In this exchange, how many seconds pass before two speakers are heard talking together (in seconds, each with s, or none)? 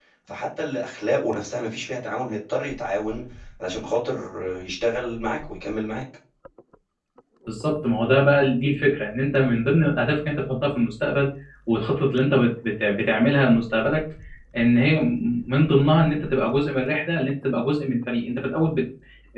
none